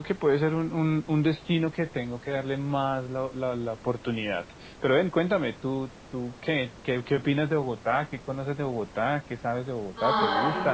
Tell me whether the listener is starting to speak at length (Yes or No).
Yes